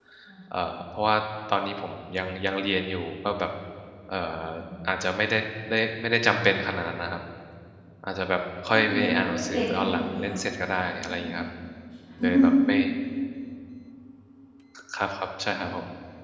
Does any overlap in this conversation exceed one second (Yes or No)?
Yes